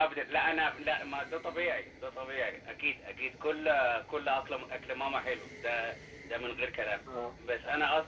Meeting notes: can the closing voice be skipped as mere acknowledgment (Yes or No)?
Yes